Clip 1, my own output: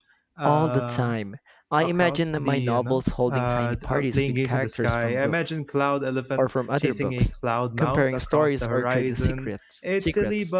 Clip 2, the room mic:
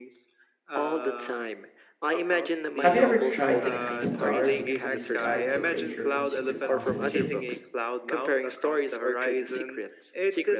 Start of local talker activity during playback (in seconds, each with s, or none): 2.8 s